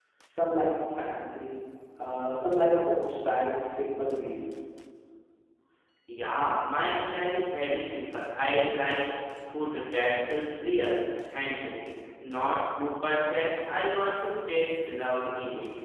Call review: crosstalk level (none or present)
none